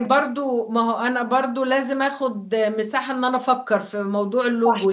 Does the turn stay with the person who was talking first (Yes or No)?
No